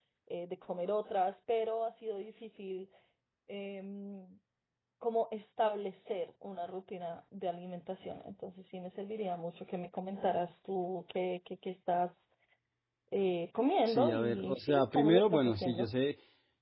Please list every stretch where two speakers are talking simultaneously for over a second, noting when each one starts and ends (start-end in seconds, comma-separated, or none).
13.9-15.9